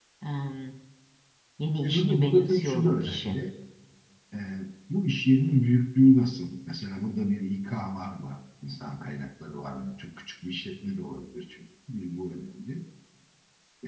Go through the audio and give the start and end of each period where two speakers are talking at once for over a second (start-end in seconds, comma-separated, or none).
1.8-3.4